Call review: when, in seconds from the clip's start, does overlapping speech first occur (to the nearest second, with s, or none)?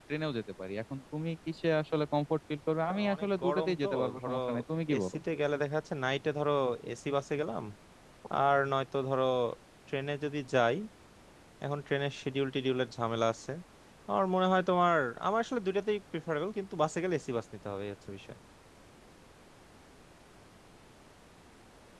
3 s